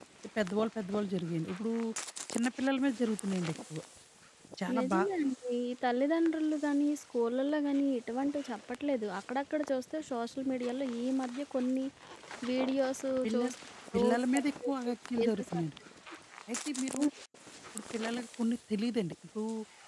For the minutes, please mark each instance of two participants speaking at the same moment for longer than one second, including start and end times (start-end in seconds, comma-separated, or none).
13.9-15.6